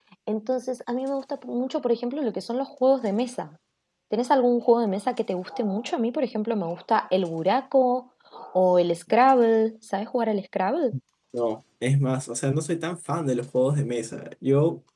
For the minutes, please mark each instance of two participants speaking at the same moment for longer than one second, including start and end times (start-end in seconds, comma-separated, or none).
none